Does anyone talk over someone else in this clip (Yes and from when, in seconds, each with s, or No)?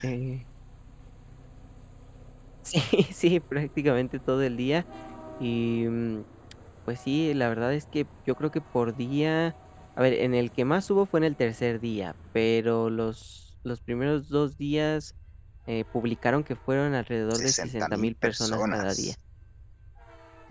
Yes, from 17.3 s